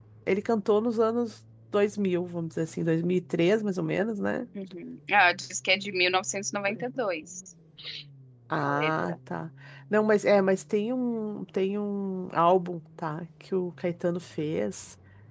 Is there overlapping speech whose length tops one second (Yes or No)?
No